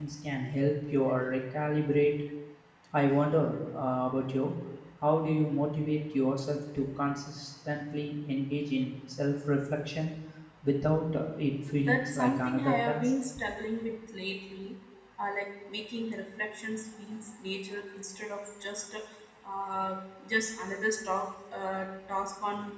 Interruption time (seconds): 11.8 s

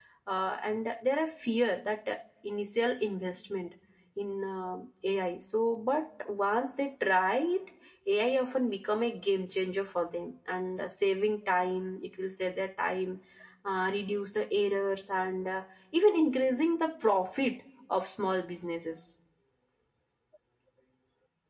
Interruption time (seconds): none

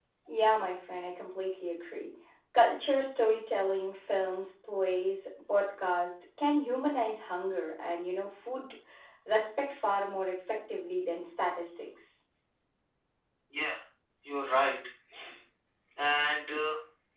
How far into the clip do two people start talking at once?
none

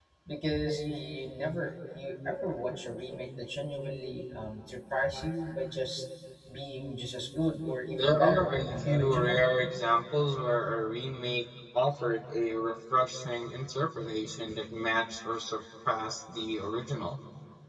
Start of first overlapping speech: 7.9 s

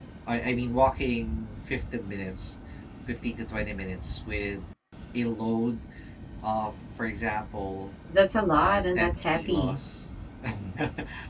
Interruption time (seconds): 8.5 s

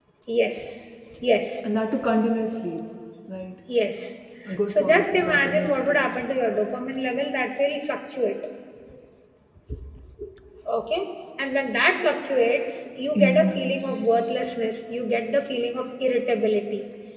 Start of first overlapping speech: 4.7 s

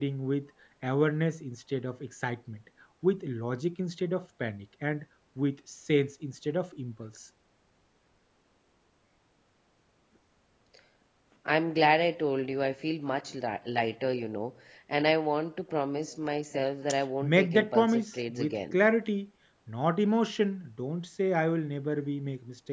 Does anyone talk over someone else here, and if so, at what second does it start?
17.2 s

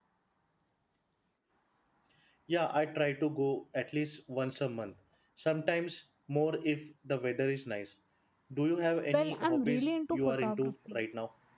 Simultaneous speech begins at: 9.1 s

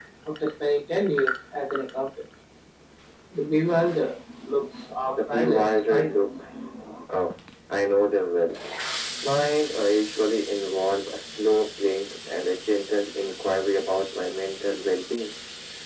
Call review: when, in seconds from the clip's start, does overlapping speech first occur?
5.2 s

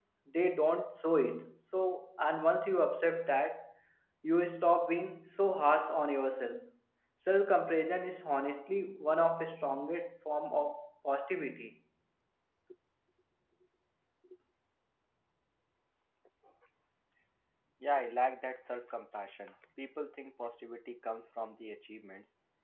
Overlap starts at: none

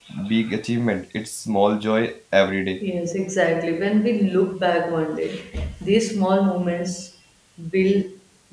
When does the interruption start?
none

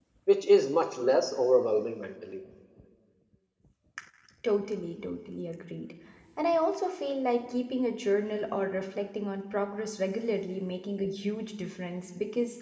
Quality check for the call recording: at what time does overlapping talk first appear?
none

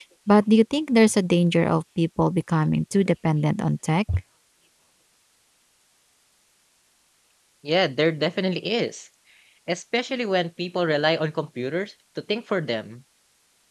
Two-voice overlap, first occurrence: none

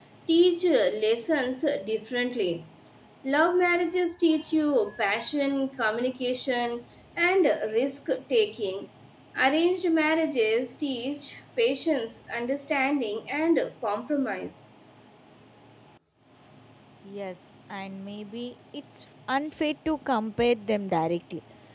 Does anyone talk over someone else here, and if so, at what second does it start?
none

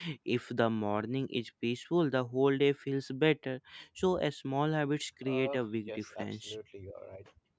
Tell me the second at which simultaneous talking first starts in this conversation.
5.2 s

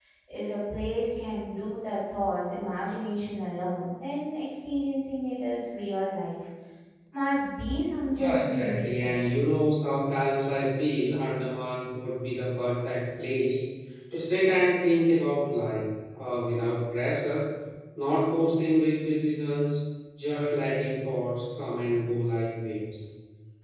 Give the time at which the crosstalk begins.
8.1 s

